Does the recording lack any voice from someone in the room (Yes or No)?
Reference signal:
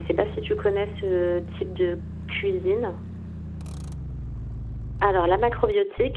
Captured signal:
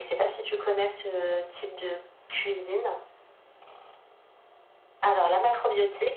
Yes